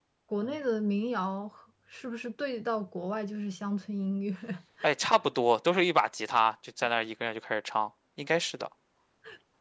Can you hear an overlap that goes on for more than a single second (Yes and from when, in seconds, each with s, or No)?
No